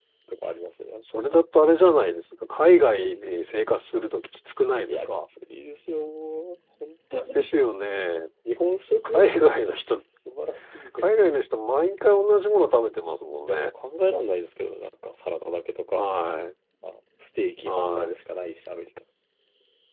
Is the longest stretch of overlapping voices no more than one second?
Yes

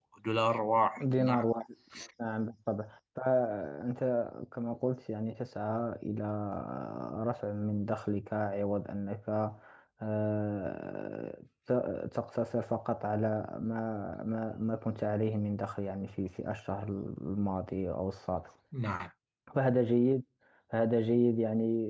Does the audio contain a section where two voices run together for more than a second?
No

